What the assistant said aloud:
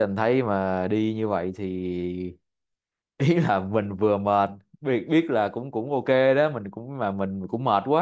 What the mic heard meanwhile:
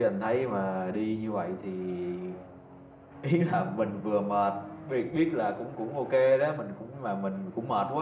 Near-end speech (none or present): none